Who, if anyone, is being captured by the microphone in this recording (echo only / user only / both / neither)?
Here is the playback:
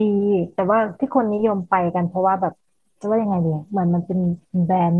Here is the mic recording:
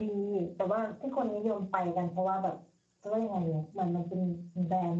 echo only